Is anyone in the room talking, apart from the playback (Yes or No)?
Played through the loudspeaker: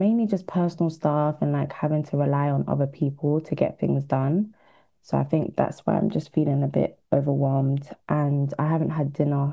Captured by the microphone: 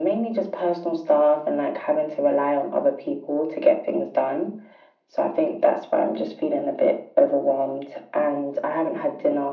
No